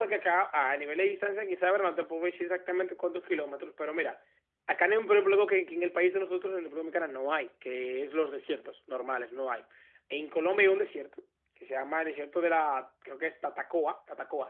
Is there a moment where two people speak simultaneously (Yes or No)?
No